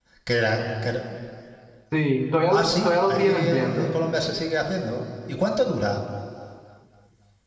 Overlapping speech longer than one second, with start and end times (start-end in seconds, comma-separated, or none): 2.5-3.9